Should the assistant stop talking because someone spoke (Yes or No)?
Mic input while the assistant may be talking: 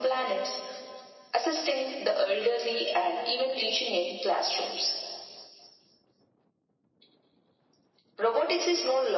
No